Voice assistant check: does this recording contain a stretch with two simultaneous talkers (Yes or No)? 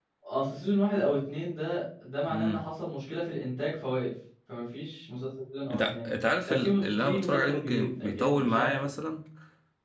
Yes